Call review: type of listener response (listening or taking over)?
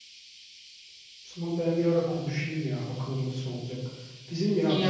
listening